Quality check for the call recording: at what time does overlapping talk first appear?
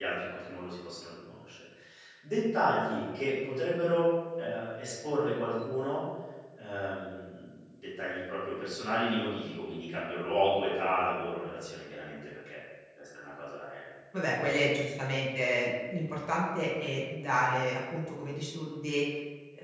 none

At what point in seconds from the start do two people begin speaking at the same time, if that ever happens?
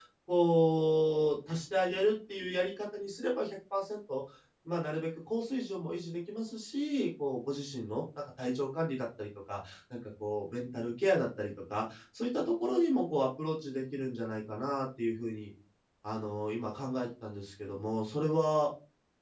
none

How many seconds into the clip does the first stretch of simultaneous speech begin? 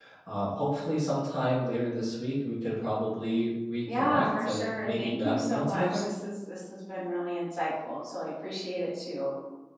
4 s

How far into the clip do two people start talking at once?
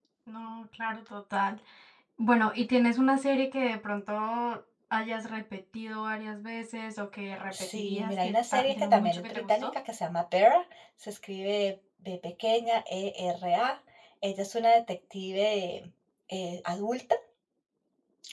8 s

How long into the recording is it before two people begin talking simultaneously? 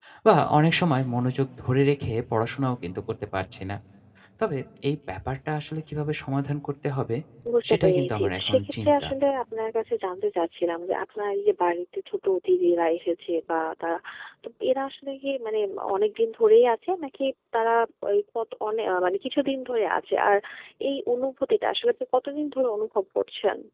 8 s

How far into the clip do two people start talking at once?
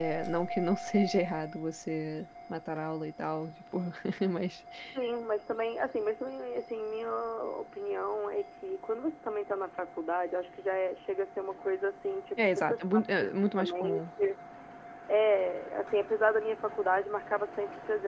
12 s

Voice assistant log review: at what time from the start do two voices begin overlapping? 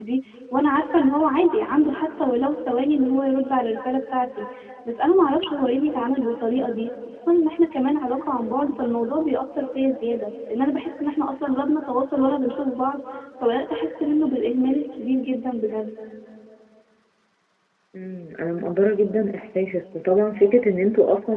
none

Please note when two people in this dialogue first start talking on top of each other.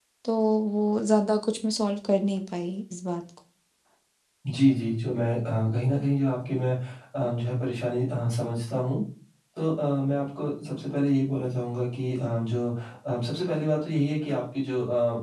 none

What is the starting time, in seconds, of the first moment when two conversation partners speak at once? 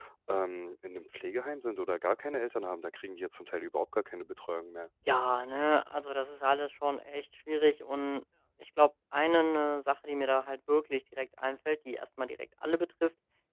none

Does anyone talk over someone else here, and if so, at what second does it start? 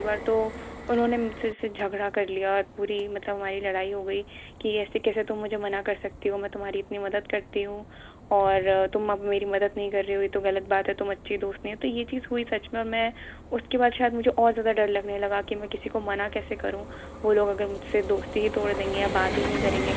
none

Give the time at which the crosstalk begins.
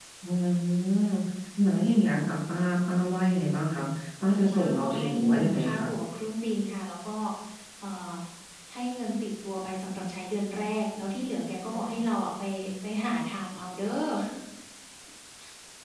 5 s

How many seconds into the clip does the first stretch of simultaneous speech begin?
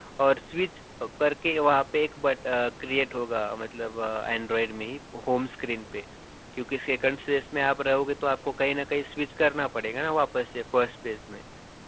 none

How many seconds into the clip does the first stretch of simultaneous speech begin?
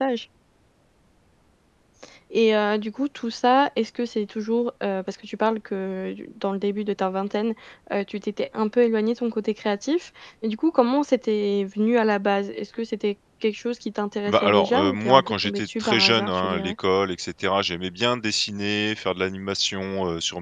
14 s

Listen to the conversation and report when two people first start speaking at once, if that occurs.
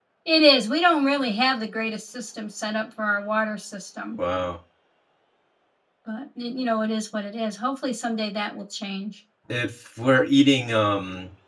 none

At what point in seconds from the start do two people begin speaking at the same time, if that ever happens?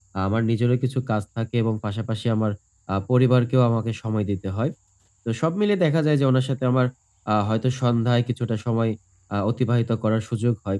none

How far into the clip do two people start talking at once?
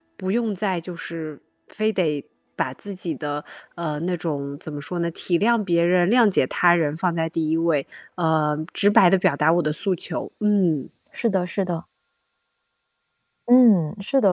none

